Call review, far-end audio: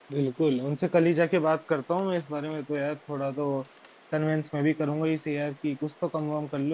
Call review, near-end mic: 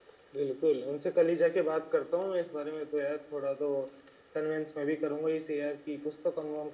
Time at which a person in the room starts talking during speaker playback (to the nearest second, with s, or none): none